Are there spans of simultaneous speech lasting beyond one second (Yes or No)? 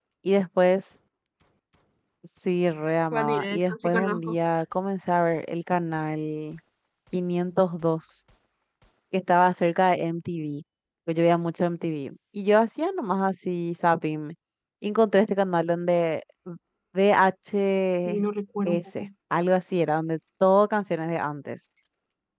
Yes